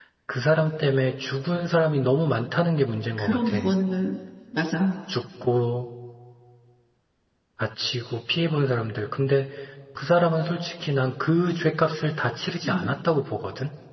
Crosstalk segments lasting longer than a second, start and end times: none

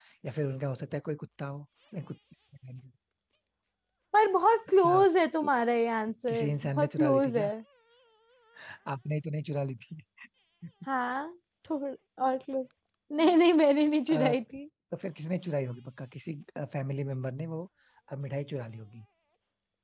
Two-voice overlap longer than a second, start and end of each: 6.3-7.5

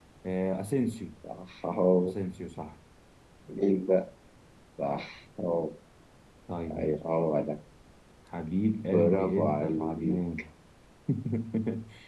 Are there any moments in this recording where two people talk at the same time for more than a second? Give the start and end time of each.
8.8-10.4

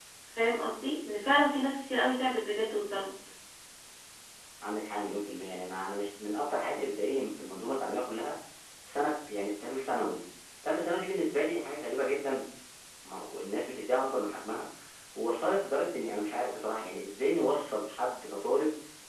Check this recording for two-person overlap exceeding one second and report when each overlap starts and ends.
none

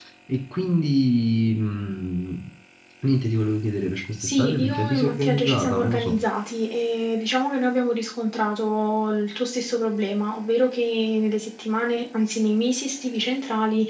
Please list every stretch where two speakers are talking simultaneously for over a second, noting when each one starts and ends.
4.2-6.2

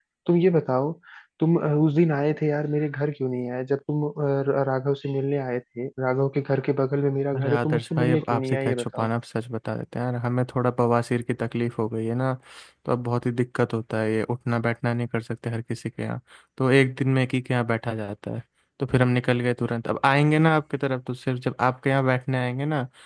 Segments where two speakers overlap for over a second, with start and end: 7.4-9.1

